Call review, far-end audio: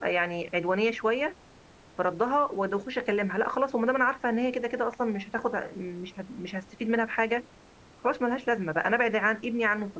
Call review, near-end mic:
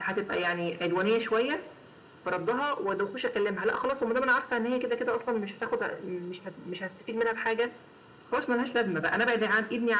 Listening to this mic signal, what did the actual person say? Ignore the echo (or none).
none